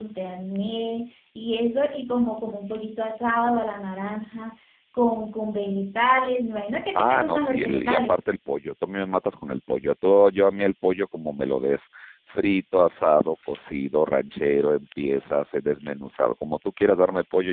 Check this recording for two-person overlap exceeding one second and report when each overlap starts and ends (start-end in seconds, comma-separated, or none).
7.0-8.2